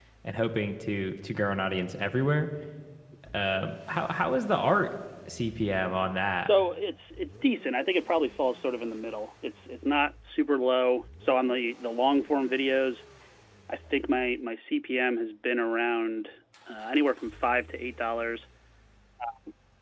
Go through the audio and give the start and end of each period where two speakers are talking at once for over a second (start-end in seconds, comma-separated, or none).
none